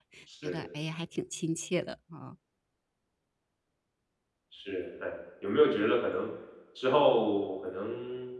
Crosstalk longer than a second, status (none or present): none